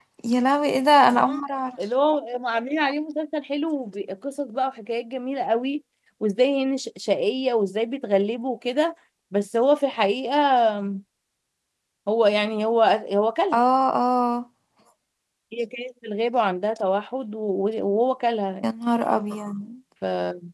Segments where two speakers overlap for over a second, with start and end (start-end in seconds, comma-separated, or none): none